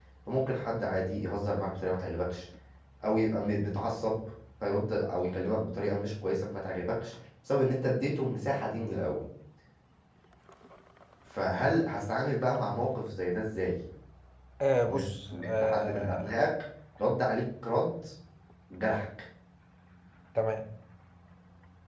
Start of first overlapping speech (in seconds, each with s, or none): 14.9 s